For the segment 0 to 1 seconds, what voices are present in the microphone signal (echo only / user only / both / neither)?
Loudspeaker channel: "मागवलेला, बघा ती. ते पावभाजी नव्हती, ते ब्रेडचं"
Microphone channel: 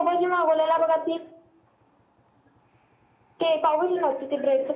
echo only